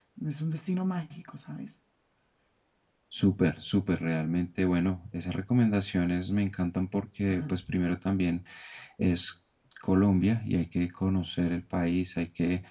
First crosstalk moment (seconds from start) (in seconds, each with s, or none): none